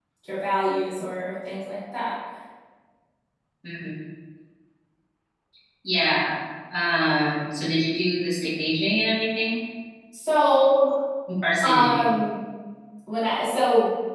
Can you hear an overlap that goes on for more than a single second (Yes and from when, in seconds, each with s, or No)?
No